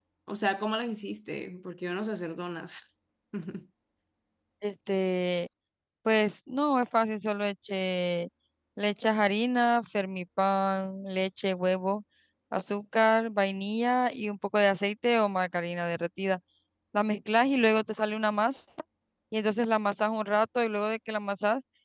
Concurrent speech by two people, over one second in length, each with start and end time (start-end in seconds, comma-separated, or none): none